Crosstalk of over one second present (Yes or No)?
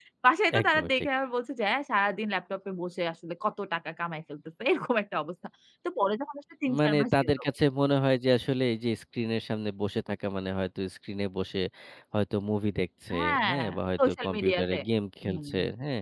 Yes